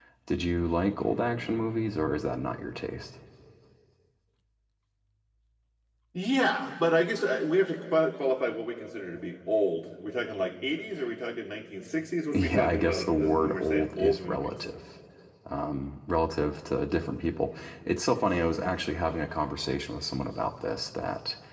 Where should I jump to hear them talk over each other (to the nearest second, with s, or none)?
12 s